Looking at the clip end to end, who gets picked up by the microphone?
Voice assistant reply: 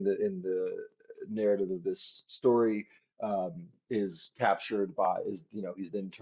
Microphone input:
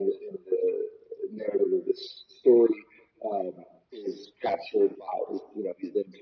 echo only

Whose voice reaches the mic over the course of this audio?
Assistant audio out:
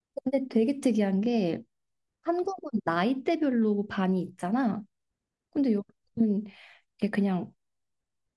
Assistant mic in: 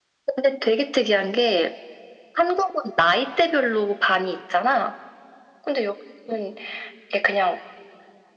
echo only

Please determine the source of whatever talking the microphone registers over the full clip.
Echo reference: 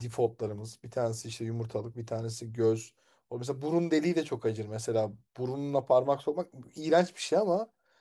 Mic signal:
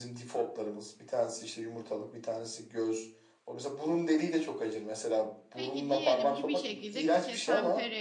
both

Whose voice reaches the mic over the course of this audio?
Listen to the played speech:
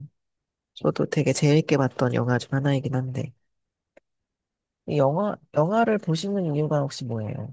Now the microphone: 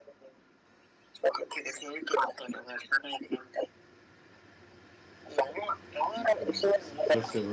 both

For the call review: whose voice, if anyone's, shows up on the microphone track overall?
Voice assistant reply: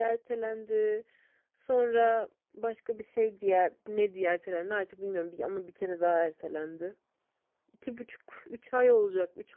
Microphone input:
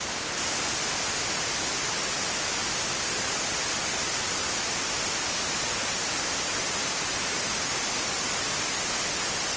neither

